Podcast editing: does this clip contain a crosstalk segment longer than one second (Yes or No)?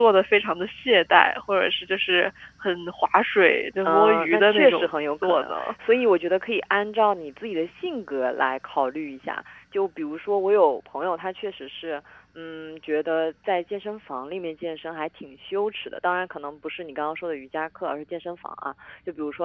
Yes